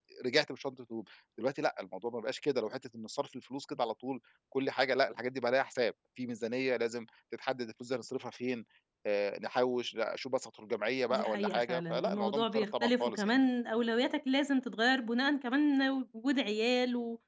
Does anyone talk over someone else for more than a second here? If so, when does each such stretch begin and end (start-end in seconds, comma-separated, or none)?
11.1-13.3